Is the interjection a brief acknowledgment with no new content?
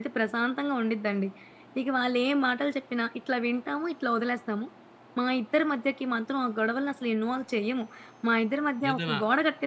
Yes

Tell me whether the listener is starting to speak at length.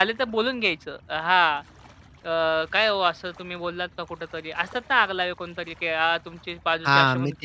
Yes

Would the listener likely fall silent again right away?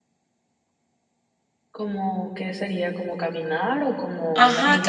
No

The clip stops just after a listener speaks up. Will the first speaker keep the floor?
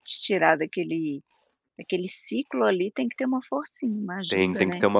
No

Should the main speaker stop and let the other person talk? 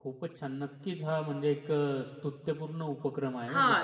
Yes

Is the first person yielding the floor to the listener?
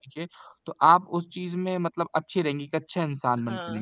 Yes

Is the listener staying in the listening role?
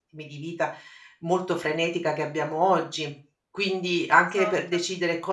Yes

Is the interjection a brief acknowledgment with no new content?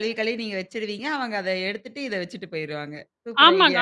No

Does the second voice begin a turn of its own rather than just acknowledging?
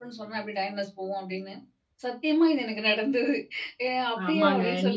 Yes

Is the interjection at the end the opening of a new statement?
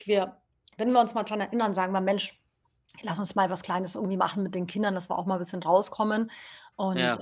No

